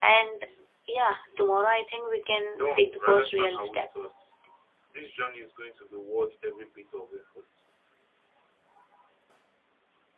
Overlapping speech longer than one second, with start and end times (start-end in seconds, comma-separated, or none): 2.6-3.9